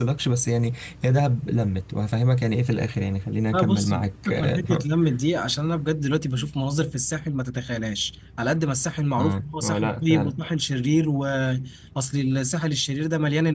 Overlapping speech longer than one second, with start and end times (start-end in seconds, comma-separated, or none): 3.5-4.9, 9.2-10.4